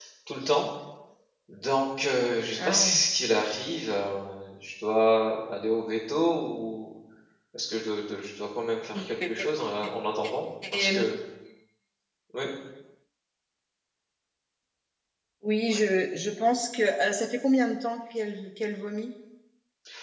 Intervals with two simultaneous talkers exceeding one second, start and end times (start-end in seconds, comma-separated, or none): none